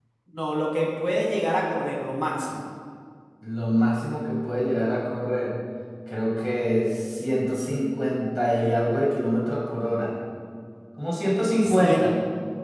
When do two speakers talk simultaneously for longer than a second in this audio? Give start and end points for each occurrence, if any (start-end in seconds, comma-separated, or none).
none